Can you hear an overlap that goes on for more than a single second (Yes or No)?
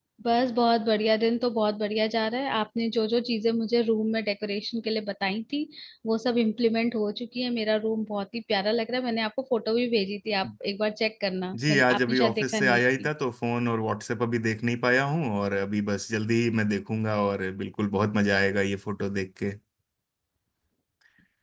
Yes